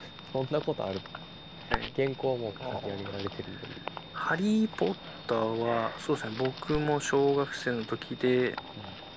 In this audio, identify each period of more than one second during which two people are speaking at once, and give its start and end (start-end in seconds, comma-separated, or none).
none